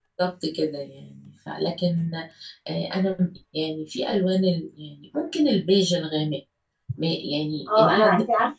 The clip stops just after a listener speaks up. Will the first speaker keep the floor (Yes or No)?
No